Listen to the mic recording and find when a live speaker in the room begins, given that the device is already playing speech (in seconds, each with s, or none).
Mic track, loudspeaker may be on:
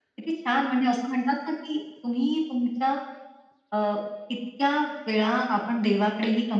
none